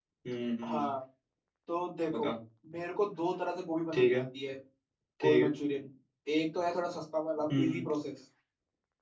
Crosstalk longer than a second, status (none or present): none